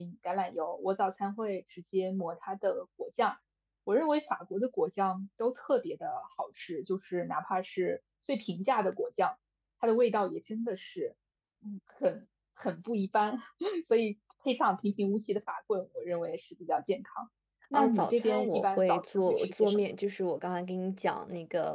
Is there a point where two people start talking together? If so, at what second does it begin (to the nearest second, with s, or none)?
18 s